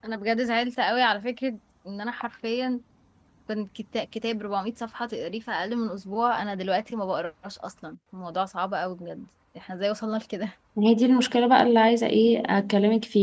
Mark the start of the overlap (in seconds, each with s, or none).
none